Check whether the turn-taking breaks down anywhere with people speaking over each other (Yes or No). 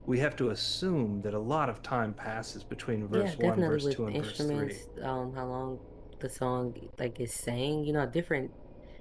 Yes